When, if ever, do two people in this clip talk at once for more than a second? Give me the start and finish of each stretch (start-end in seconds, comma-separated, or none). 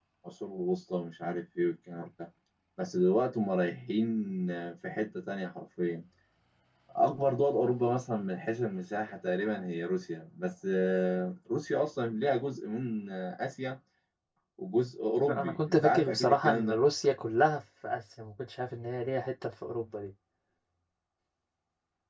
15.2-16.8